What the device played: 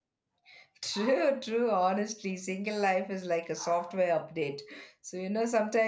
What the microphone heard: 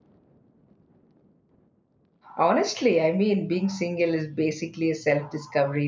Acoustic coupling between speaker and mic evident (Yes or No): No